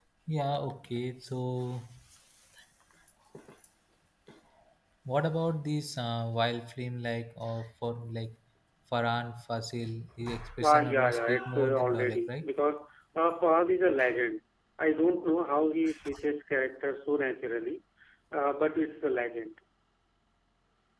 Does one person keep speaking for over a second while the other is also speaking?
Yes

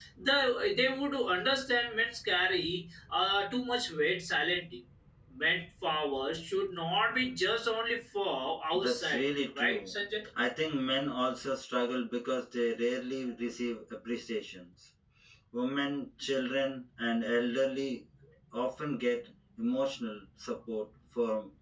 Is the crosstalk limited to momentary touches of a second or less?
No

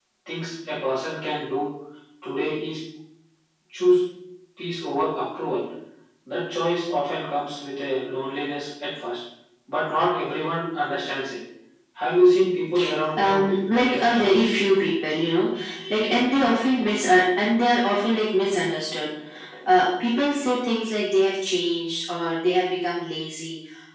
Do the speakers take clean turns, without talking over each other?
No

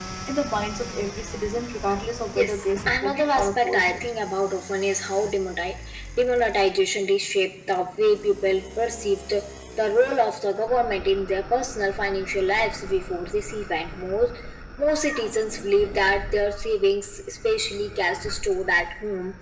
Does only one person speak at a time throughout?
No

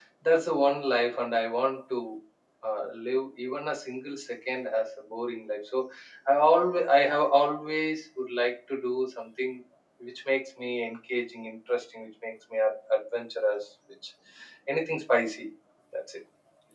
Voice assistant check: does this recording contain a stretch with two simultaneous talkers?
No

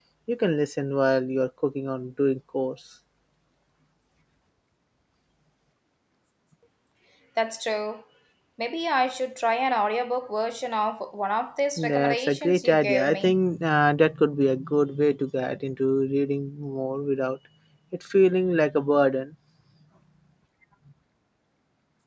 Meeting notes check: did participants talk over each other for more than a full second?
Yes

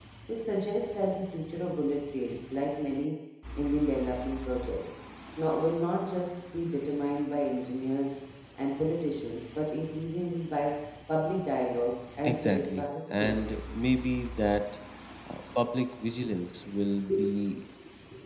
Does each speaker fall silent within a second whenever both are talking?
No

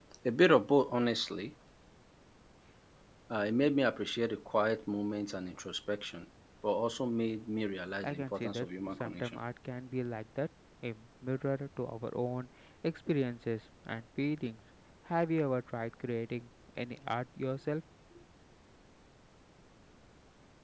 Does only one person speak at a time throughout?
No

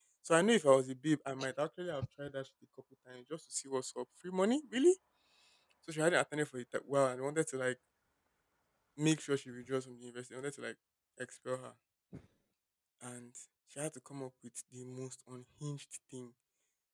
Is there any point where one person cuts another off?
No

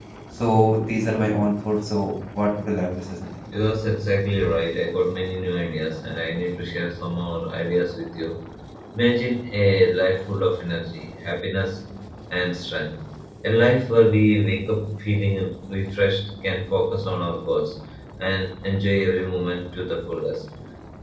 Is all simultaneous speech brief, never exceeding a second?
Yes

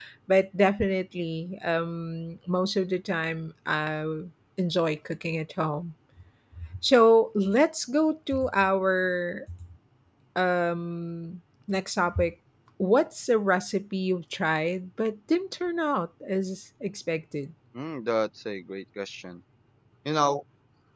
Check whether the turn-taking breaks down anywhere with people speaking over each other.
No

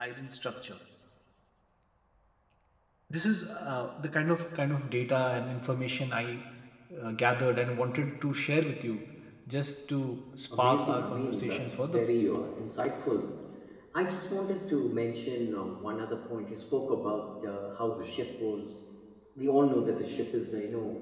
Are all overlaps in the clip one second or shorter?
No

